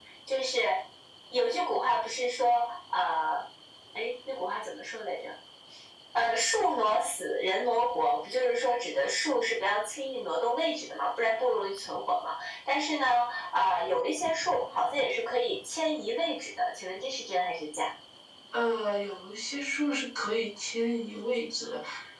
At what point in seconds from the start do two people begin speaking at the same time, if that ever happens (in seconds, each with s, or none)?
none